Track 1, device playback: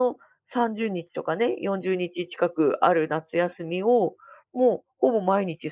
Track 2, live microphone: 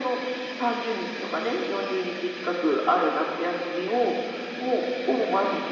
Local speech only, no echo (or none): none